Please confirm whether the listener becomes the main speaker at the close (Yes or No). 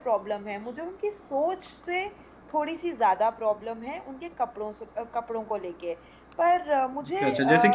Yes